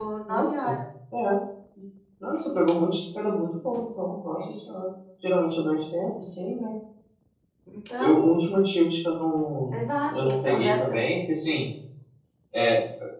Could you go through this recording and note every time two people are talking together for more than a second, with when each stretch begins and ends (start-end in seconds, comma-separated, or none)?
9.7-11.1